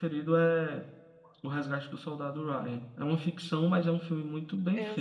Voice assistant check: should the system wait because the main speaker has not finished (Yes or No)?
No